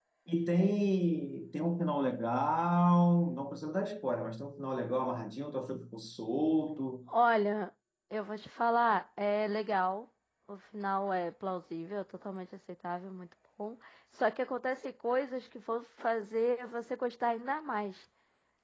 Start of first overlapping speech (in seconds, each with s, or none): none